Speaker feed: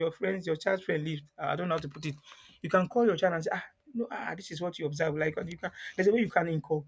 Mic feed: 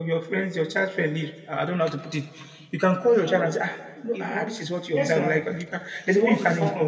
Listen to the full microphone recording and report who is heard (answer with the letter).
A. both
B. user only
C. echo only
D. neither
A